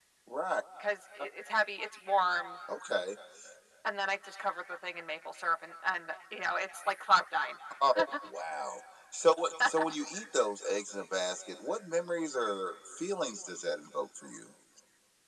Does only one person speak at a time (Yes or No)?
Yes